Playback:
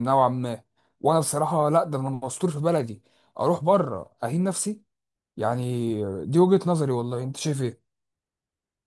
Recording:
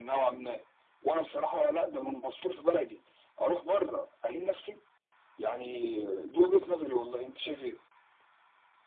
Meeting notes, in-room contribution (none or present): none